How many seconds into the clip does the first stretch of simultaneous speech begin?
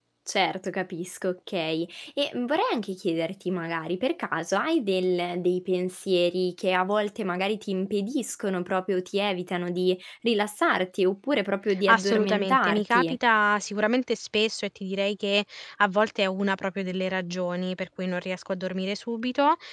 11.7 s

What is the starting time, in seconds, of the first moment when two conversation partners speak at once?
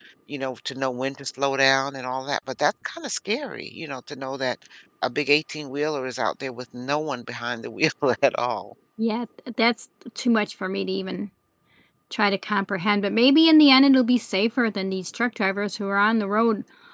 none

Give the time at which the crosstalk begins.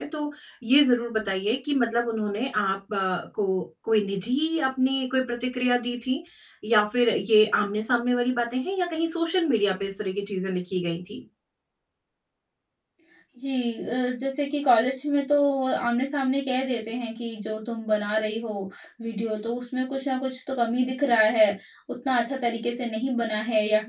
none

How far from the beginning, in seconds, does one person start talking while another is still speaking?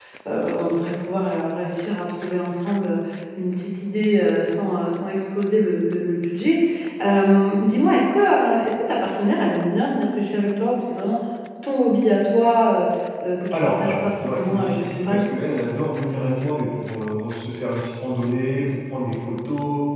13.5 s

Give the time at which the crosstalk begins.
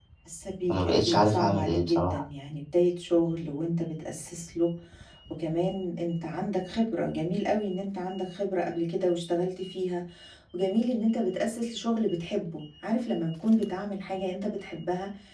0.7 s

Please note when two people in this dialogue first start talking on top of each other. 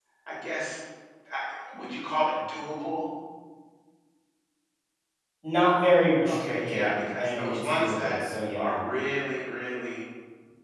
6.3 s

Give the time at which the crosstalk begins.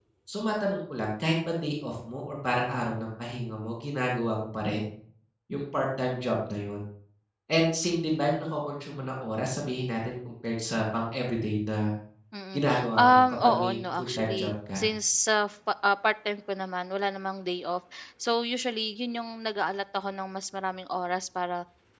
12.5 s

